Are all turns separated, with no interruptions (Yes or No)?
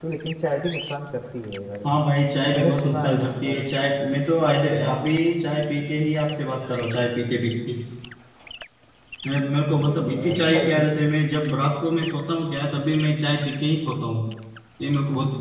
No